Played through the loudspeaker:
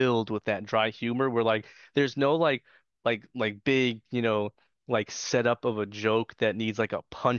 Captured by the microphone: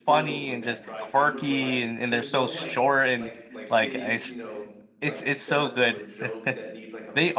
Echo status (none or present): present